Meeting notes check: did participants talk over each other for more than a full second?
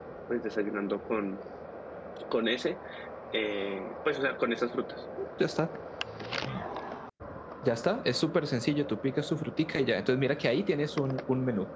No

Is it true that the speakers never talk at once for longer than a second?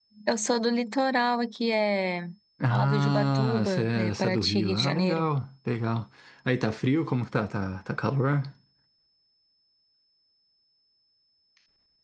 No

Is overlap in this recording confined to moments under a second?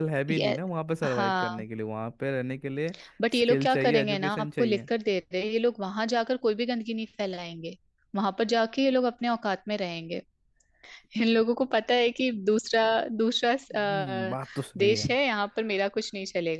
No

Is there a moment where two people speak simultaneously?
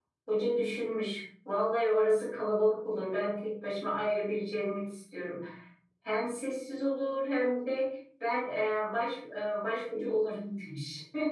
No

